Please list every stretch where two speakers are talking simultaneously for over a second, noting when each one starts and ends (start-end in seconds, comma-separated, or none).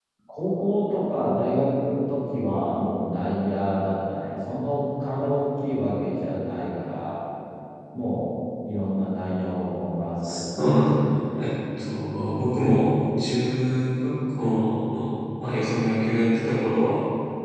10.3-11.5